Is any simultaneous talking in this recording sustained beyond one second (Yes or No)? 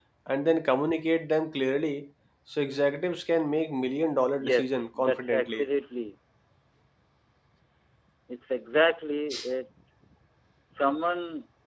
Yes